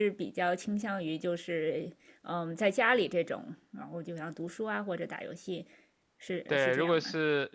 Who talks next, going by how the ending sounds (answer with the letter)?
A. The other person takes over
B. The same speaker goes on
A